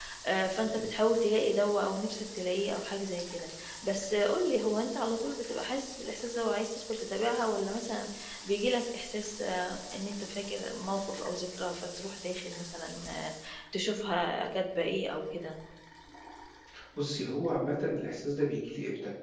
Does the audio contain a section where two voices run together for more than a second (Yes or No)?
No